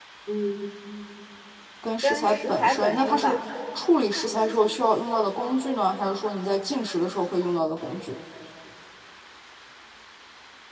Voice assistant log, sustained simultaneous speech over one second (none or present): present